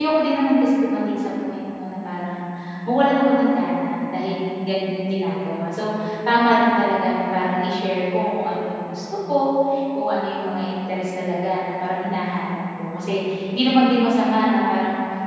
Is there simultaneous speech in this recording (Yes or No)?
No